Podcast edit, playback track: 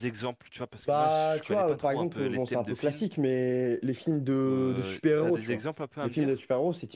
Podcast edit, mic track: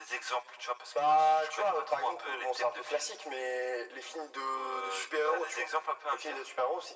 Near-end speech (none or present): none